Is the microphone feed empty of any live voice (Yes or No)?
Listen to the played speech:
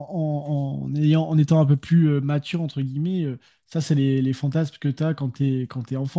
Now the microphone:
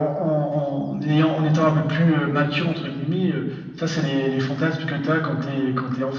Yes